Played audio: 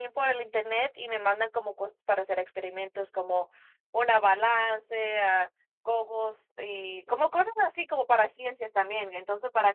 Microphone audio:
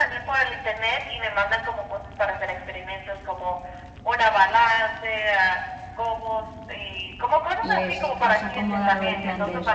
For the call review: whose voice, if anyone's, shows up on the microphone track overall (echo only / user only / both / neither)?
both